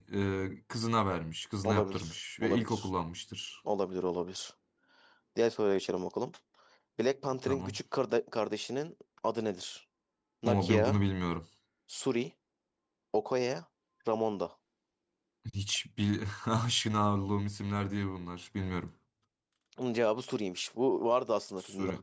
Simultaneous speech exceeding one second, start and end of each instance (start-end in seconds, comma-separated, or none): 1.6-2.9